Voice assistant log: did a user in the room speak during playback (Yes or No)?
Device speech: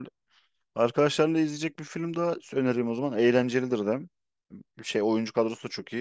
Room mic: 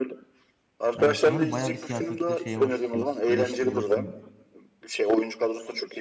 Yes